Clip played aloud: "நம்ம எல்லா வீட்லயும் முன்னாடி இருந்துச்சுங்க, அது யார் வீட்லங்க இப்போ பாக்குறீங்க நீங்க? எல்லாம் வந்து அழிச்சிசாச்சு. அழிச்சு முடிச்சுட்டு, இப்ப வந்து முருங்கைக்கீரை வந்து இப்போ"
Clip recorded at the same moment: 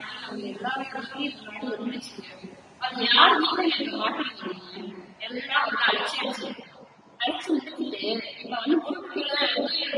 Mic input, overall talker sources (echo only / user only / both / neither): echo only